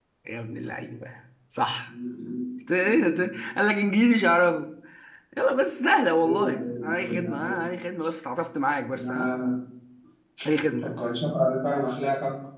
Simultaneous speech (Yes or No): Yes